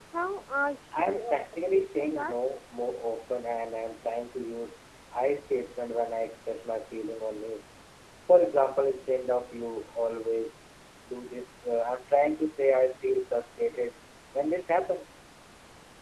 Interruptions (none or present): present